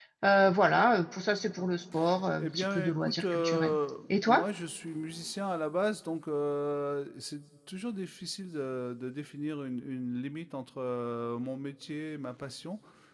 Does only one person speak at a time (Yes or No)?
No